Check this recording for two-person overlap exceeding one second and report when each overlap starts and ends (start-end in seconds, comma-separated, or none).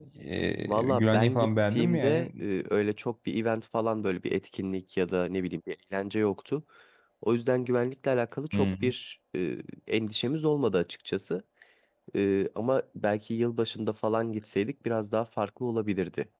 0.9-2.3